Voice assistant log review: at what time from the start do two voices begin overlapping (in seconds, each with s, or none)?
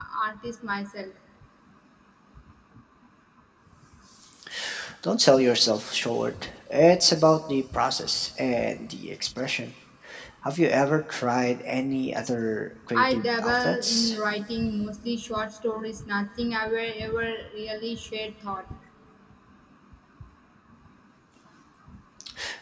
12.9 s